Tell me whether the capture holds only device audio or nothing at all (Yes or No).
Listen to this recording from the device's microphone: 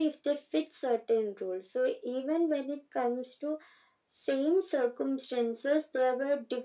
Yes